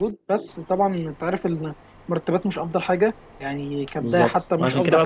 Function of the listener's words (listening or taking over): taking over